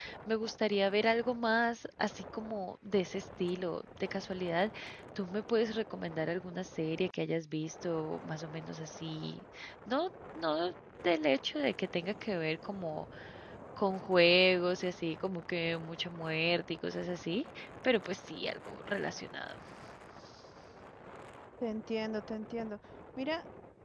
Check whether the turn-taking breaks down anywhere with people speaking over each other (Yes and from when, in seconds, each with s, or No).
No